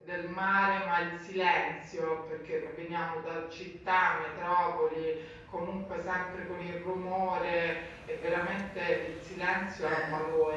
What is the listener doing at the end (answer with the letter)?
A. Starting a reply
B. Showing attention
B